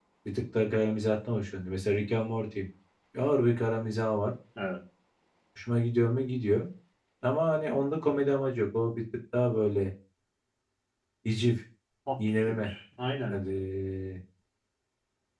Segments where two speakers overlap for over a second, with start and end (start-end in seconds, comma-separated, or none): none